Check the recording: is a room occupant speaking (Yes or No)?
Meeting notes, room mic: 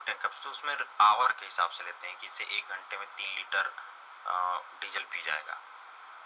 No